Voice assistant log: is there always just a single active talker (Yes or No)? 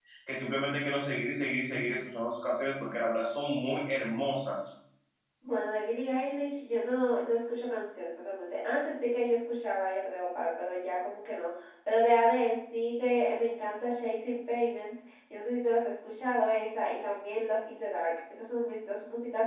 Yes